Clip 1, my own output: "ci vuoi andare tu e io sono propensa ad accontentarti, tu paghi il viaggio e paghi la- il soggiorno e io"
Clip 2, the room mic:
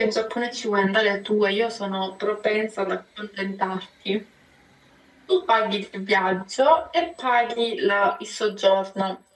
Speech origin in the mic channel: echo only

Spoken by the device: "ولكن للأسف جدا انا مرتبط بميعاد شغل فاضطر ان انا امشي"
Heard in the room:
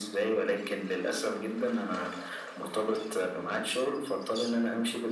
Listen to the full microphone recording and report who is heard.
echo only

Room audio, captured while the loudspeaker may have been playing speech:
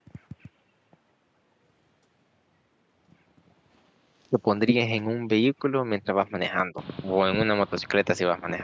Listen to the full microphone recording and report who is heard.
user only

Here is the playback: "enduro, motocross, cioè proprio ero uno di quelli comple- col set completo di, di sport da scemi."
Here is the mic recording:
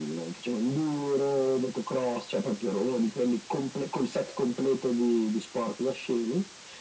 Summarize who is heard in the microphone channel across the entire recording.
echo only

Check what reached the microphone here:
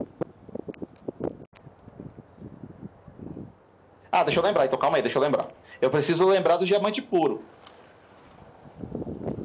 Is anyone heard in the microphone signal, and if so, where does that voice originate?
user only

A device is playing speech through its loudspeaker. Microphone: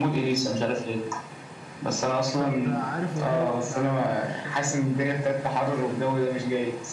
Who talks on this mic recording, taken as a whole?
both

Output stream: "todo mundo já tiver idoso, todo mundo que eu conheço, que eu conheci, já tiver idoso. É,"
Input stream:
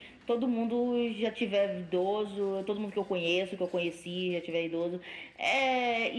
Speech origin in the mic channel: echo only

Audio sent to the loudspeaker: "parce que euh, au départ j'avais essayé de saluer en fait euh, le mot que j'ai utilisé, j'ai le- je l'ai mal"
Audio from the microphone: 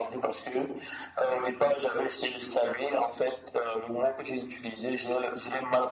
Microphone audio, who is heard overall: echo only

